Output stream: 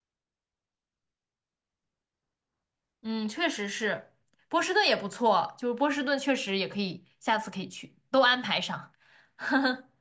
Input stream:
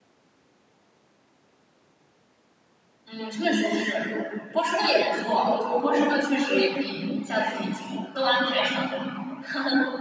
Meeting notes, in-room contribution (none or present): none